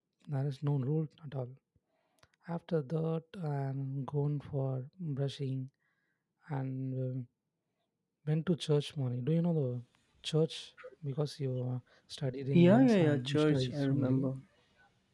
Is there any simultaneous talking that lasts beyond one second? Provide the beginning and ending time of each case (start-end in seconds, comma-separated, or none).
12.5-14.3